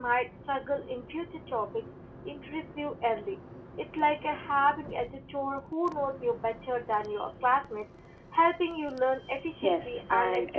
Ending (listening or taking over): taking over